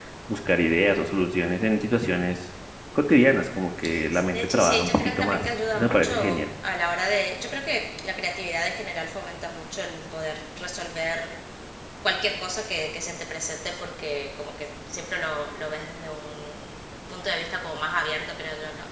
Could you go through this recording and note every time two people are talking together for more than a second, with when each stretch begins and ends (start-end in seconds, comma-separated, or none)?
4.3-6.4